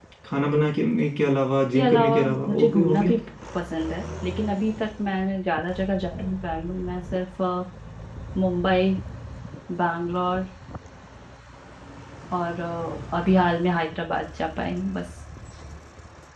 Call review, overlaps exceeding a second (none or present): present